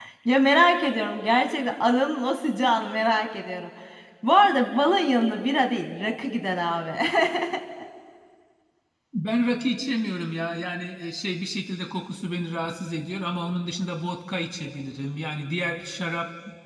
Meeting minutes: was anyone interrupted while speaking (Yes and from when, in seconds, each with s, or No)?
No